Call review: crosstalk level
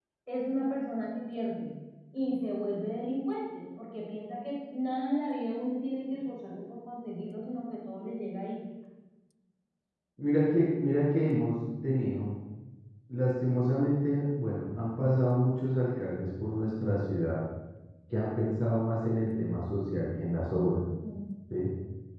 none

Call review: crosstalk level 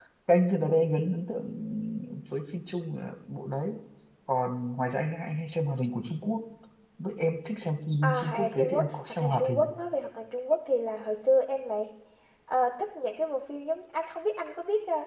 present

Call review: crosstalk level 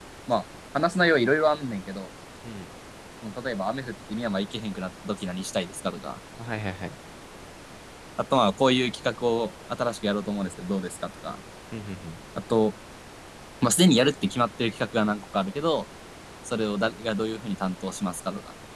none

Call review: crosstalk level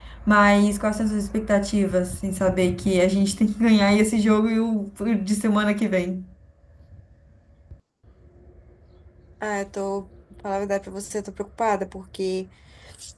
none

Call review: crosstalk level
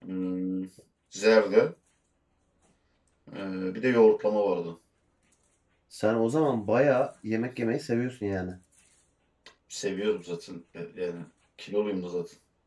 none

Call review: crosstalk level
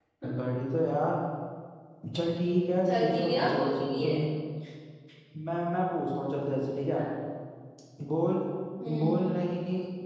present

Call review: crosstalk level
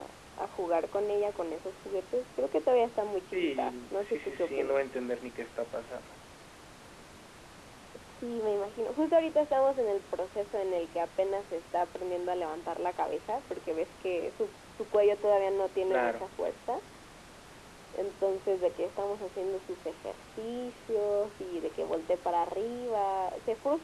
present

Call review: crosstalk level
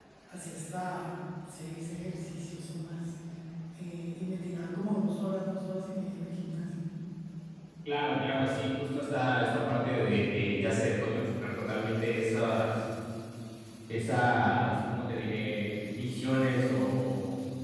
none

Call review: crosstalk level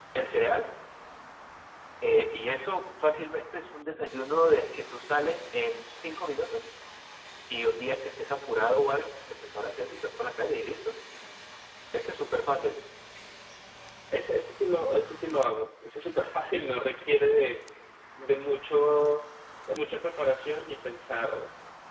none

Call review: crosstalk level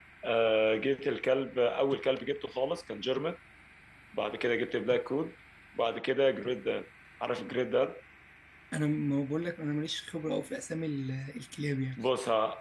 none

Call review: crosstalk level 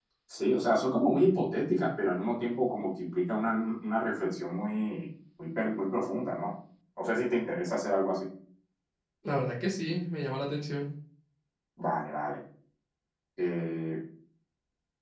none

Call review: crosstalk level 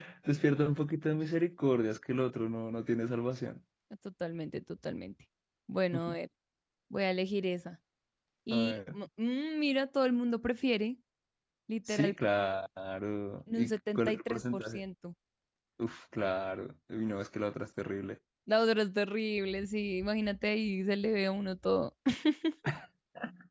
present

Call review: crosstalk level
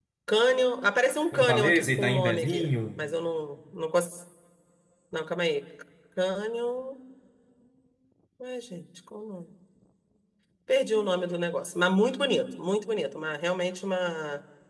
present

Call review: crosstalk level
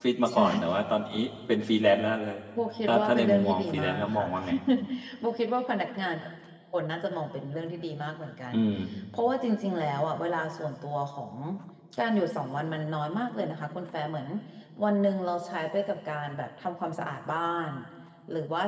present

